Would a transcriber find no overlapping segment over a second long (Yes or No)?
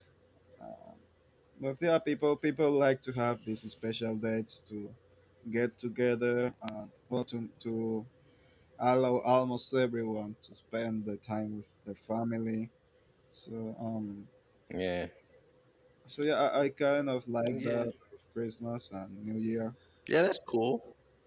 Yes